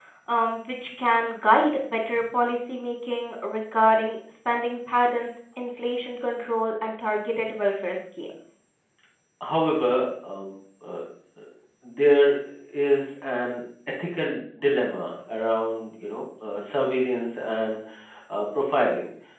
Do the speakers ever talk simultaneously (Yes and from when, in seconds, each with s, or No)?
No